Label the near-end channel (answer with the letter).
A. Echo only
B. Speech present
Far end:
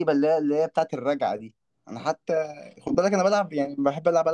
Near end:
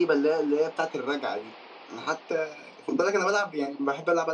A